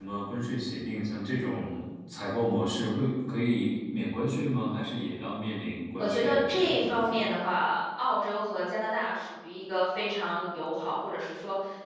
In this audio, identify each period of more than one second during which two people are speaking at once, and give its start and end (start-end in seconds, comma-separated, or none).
6.0-7.2